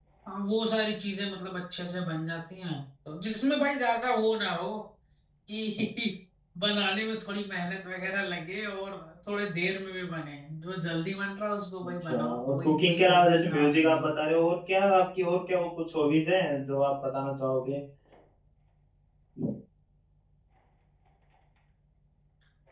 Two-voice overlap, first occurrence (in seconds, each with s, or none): 11.8 s